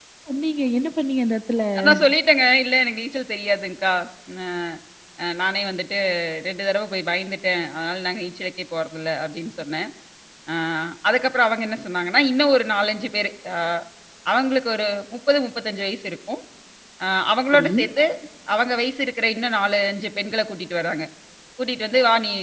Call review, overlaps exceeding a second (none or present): none